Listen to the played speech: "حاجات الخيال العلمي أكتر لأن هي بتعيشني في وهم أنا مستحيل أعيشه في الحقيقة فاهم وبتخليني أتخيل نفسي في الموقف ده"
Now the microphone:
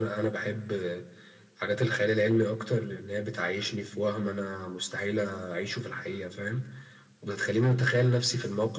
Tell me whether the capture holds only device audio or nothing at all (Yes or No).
Yes